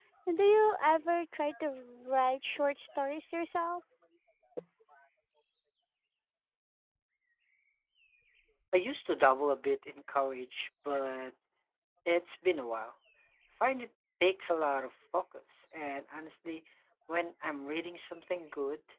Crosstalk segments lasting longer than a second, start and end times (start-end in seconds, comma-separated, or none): none